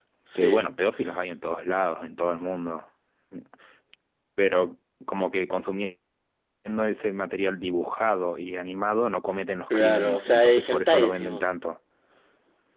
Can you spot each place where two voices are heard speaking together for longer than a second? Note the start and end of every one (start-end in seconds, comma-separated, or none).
9.7-11.4